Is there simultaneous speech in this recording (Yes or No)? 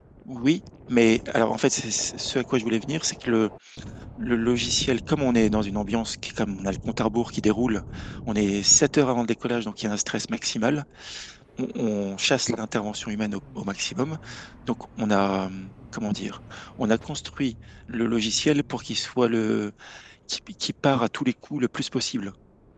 No